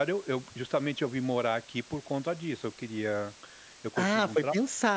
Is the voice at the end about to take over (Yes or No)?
Yes